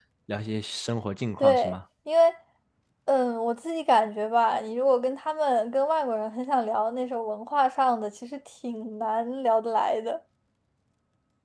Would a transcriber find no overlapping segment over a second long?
Yes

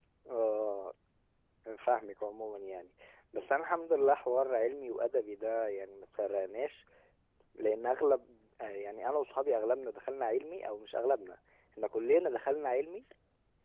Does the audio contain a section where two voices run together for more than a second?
No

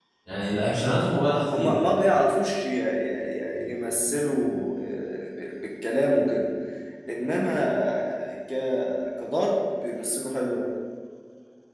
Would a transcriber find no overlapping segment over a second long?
Yes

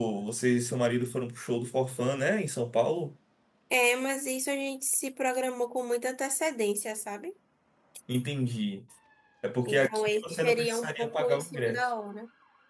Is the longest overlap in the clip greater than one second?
Yes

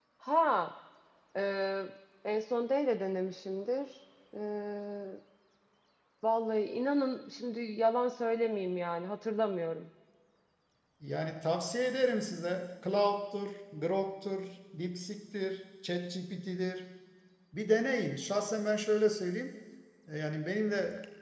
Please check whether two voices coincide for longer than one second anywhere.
No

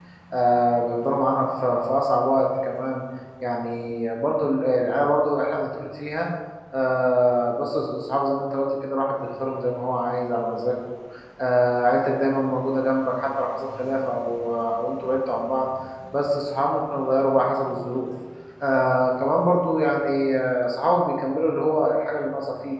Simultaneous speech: No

